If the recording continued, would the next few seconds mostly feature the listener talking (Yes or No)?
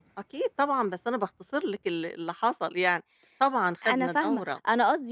Yes